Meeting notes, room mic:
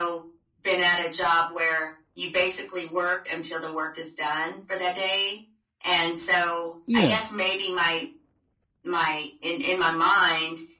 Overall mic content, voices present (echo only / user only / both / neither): both